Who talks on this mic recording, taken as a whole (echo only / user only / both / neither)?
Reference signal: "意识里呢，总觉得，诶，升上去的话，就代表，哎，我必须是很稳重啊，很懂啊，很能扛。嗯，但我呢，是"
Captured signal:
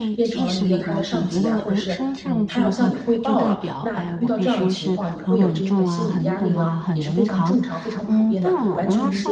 both